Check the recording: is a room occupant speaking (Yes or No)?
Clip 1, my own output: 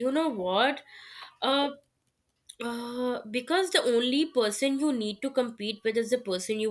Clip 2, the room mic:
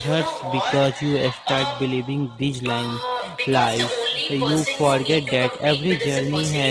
Yes